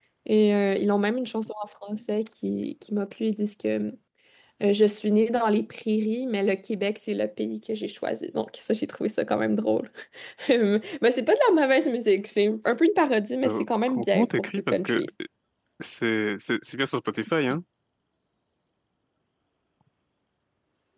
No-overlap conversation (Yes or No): No